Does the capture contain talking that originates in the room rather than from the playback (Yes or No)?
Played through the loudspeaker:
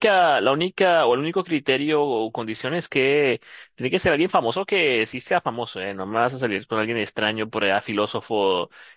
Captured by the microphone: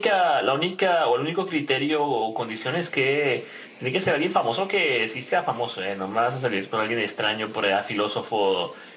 No